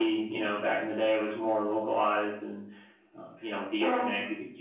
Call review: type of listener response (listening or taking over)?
listening